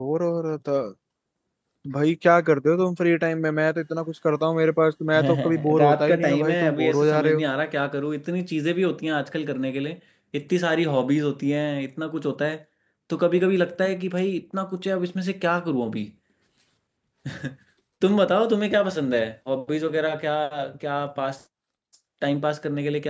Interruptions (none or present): present